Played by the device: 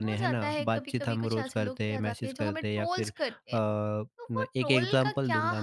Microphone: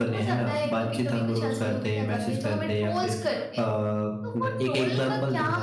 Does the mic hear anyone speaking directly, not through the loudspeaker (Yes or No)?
No